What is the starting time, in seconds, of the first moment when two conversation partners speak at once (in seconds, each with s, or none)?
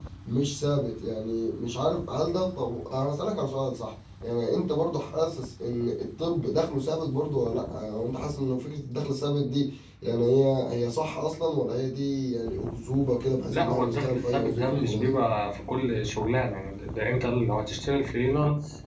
13.5 s